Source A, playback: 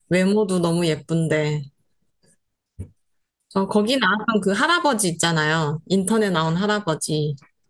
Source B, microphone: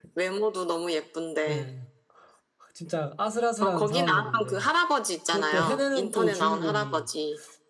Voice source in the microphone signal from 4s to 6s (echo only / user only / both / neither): both